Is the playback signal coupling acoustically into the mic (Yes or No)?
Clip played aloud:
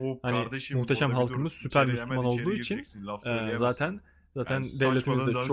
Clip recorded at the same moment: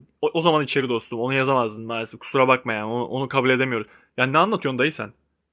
No